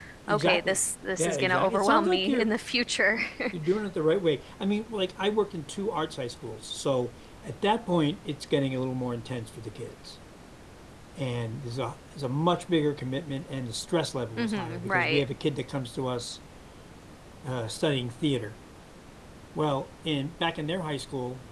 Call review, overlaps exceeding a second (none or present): present